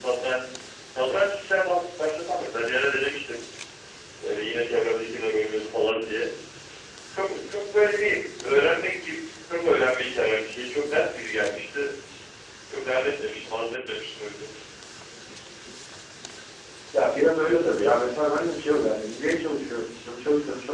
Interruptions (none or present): none